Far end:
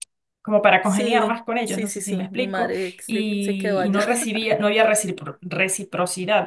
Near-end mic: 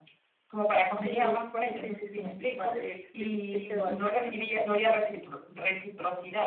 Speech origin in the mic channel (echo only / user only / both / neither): echo only